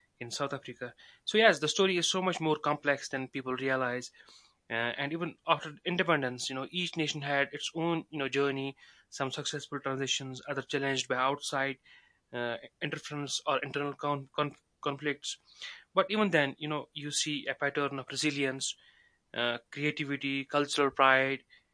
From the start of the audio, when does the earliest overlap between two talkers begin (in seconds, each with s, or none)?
none